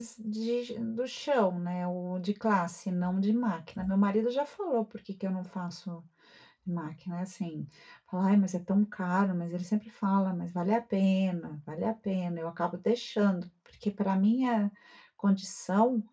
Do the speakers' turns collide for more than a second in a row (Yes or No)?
No